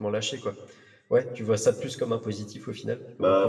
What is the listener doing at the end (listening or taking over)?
taking over